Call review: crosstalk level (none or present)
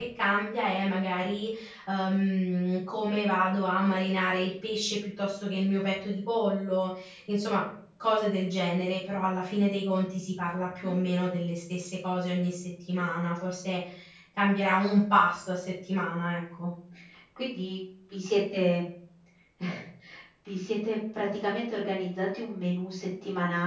none